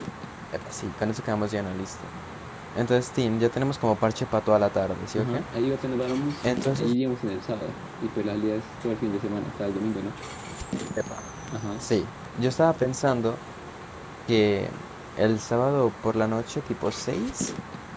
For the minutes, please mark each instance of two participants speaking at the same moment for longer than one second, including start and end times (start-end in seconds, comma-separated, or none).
none